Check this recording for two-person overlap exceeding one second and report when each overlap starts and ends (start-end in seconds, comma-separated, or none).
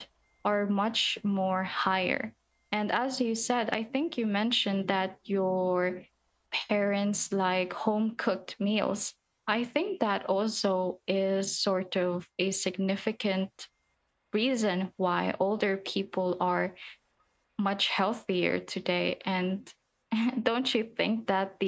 none